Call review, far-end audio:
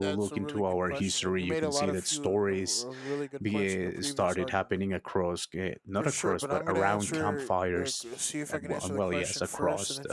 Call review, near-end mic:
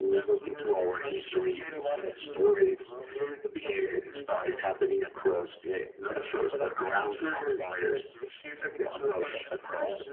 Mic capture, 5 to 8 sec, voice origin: echo only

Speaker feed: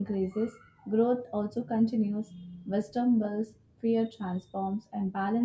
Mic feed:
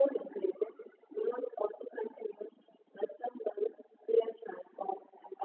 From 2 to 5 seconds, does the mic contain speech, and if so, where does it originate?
echo only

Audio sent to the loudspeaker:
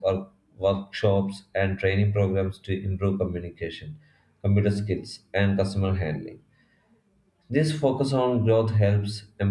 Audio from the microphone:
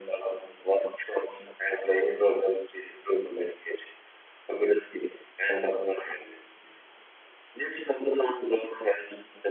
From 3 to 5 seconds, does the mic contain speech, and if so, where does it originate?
echo only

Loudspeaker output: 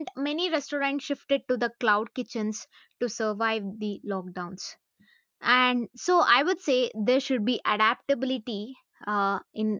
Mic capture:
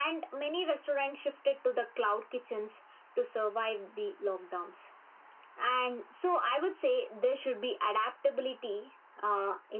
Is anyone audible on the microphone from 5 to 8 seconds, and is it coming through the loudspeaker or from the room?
echo only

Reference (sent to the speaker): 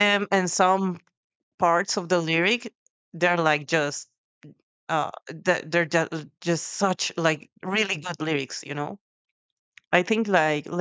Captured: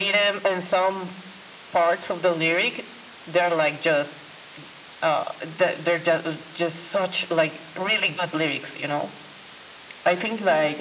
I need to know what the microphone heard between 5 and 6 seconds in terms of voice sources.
echo only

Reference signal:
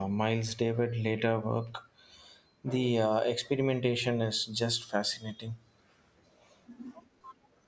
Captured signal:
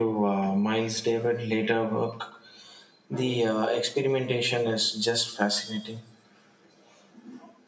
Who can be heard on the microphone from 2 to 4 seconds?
echo only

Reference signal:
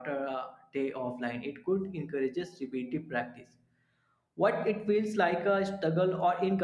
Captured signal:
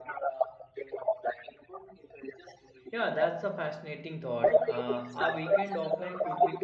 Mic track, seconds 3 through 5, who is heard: both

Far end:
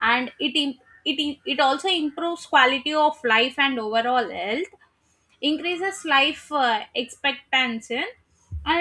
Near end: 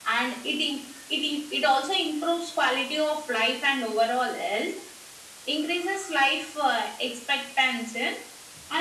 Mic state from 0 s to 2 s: echo only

